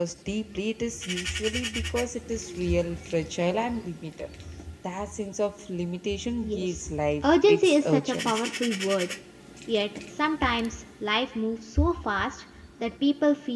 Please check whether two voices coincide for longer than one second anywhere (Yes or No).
Yes